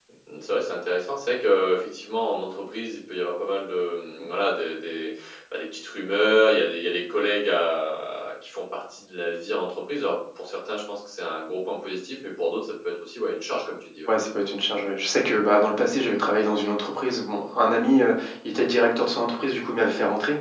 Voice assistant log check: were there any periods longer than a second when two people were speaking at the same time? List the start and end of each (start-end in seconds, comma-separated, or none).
none